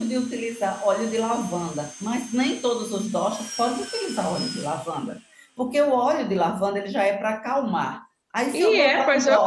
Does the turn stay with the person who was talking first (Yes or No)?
No